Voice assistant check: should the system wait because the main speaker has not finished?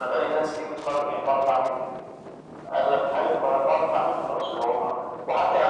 Yes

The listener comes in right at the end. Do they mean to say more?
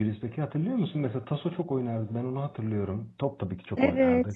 Yes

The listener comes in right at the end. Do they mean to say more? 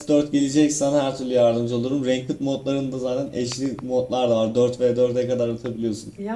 No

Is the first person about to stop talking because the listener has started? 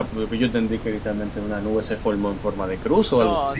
Yes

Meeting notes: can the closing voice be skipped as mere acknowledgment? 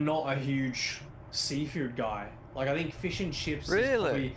Yes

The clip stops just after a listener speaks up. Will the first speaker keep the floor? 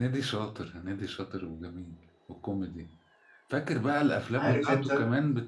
Yes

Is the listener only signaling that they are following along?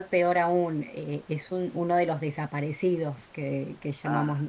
Yes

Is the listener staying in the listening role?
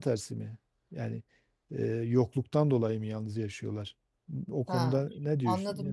No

